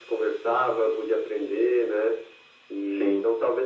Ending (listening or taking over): listening